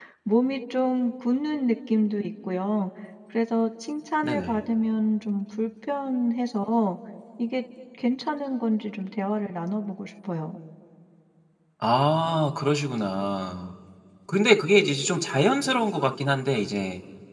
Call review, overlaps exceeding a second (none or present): none